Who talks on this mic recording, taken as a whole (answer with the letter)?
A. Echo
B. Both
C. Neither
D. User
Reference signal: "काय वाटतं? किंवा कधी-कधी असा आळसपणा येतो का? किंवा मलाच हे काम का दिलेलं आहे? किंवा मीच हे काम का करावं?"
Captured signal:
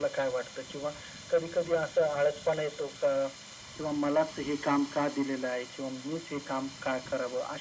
A